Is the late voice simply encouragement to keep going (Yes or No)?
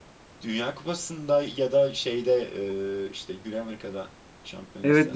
No